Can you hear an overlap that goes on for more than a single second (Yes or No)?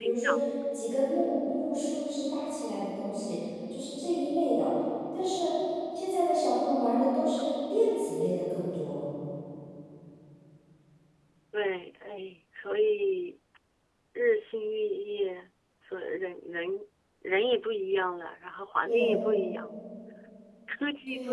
No